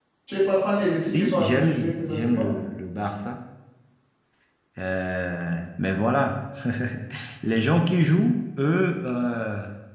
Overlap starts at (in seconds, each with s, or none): 1.1 s